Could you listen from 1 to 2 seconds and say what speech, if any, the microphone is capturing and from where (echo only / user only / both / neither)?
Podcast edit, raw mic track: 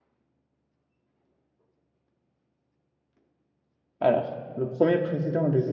neither